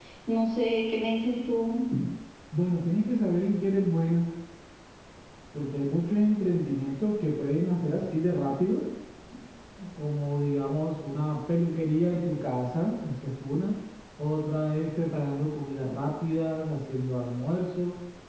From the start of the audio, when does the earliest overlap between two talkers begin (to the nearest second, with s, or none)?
none